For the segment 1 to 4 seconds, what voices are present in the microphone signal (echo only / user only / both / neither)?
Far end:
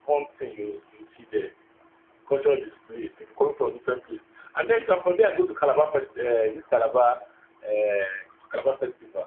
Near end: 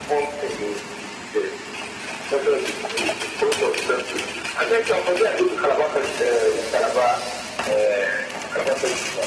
echo only